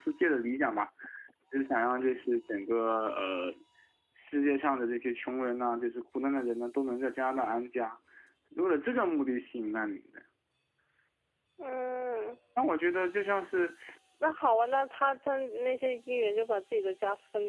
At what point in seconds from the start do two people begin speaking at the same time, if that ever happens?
none

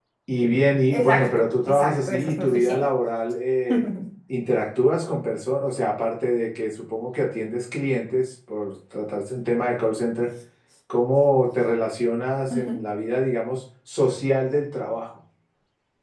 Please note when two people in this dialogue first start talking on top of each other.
1.0 s

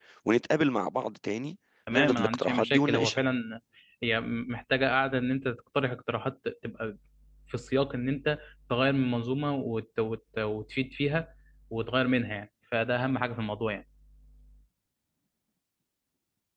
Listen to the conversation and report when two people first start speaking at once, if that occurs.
1.9 s

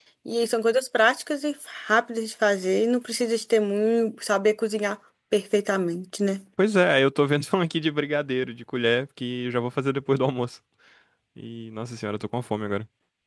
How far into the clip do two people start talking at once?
none

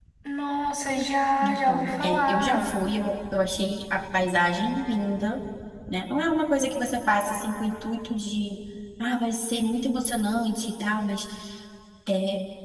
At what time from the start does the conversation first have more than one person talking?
1.4 s

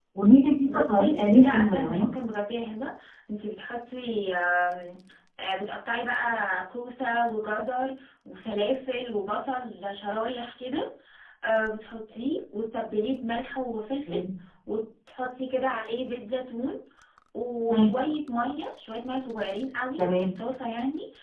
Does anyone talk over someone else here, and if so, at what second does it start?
0.7 s

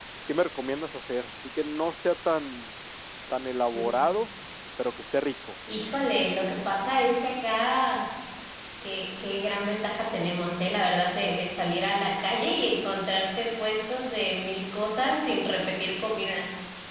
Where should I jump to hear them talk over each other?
none

